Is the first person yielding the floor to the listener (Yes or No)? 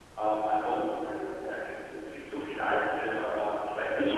Yes